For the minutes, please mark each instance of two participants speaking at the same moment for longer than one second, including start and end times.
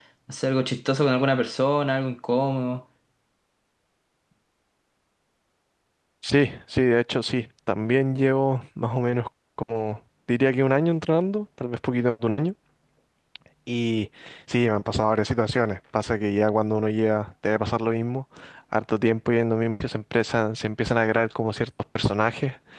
none

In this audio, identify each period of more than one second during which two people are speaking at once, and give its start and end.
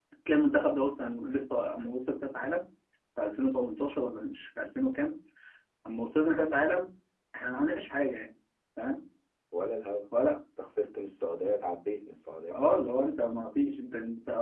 none

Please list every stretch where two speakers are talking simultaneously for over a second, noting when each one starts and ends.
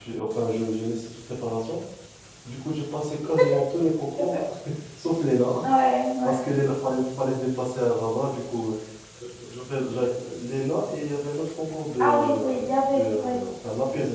12.0-13.4

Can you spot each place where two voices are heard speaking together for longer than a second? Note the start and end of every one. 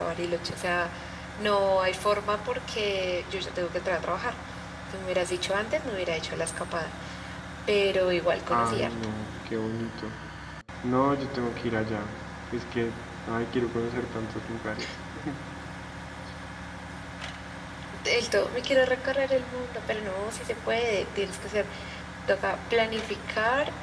none

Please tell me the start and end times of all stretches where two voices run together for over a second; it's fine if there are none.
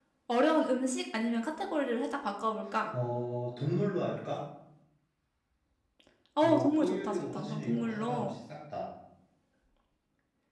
6.4-8.3

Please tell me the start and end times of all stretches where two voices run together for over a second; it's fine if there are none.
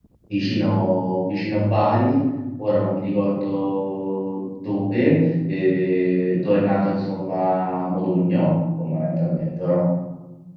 none

